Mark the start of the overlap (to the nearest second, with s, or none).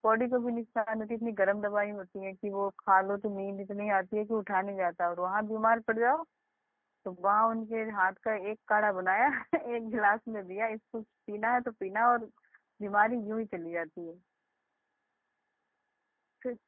none